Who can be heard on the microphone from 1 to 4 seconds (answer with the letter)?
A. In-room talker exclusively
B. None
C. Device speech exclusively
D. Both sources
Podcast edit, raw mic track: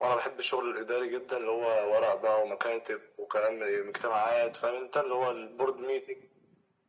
C